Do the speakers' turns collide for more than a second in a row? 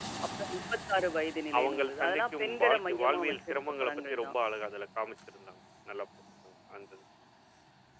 Yes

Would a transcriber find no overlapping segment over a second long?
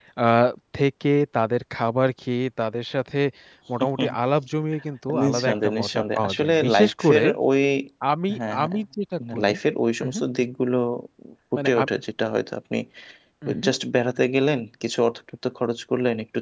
No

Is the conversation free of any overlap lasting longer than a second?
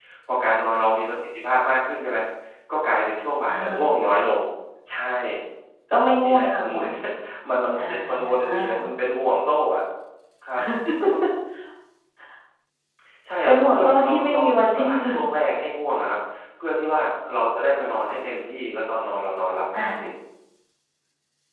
No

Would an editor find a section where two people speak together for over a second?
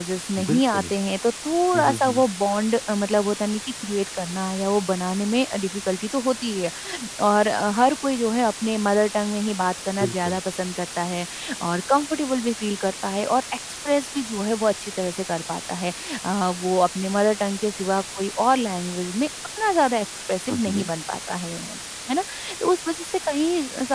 No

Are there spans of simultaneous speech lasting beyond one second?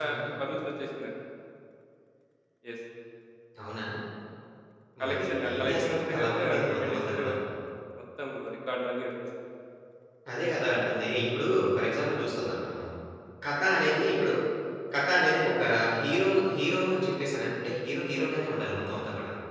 Yes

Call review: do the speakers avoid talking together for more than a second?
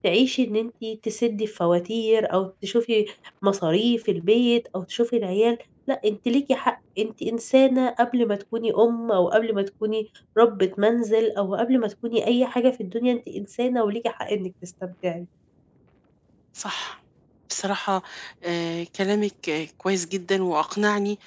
Yes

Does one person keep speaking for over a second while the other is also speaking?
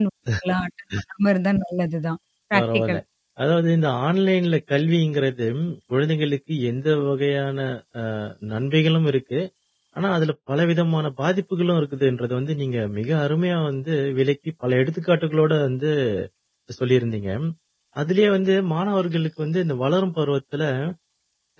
No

